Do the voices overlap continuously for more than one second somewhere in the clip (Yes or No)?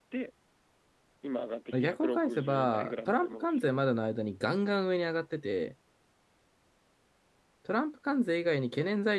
Yes